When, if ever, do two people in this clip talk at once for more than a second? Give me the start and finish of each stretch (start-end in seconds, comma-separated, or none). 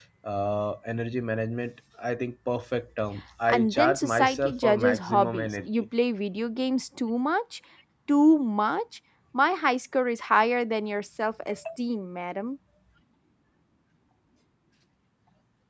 3.5-5.9